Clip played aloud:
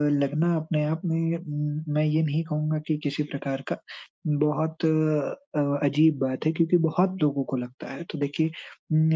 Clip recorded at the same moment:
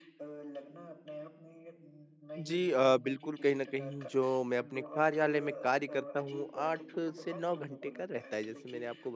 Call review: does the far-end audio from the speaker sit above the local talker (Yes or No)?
No